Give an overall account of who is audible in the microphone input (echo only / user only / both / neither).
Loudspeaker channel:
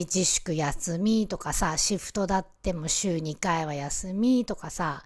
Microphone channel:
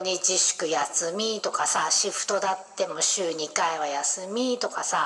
echo only